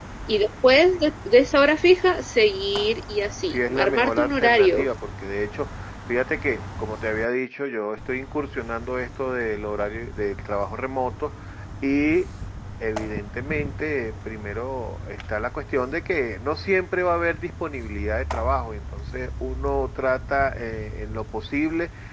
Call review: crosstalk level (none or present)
present